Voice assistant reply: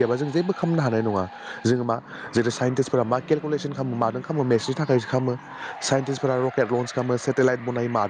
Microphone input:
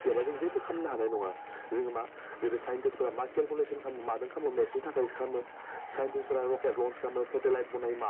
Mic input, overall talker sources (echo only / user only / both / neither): echo only